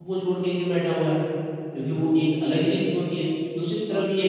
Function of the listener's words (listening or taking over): listening